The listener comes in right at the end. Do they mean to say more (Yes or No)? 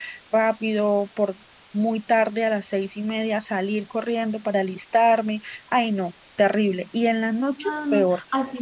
Yes